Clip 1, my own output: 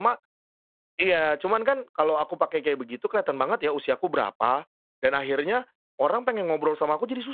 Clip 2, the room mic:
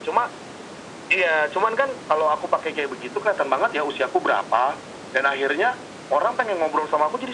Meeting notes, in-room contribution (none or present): none